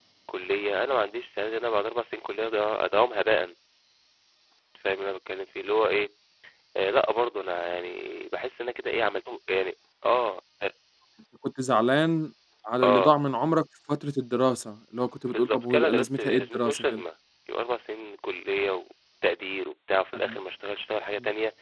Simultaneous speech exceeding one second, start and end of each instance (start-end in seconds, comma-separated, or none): 15.3-17.0